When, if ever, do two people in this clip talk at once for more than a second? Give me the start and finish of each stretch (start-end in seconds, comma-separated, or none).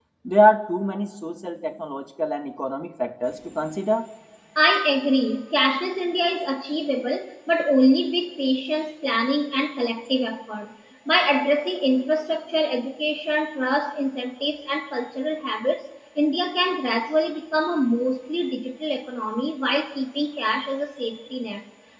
none